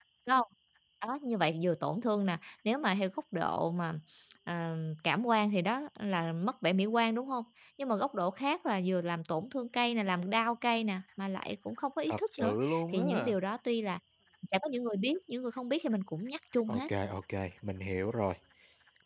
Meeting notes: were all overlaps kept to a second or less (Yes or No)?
No